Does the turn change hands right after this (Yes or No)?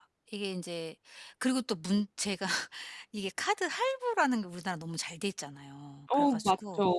Yes